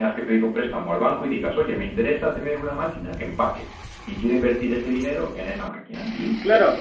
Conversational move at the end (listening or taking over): listening